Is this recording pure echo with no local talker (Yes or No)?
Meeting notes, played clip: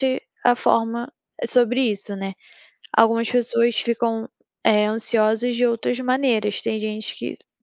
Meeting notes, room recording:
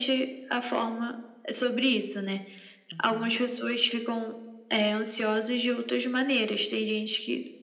No